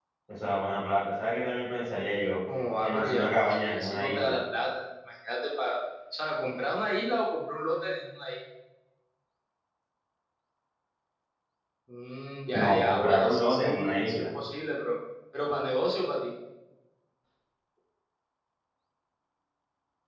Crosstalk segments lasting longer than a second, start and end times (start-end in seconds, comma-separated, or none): 2.8-4.3, 12.6-14.2